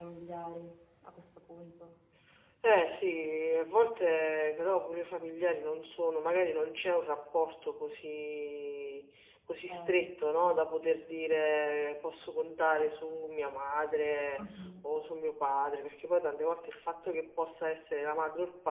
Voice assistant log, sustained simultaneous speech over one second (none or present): none